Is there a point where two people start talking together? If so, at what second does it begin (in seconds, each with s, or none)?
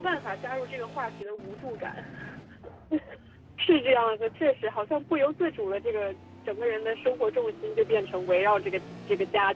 none